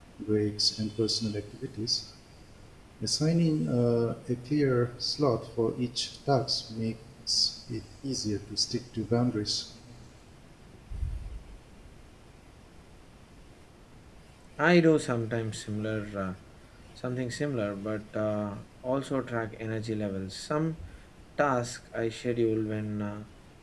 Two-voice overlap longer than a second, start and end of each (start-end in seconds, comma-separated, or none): none